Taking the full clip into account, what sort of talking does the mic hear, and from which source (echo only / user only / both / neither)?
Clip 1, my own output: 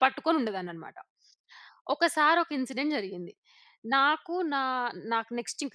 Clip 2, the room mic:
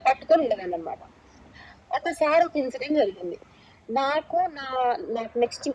echo only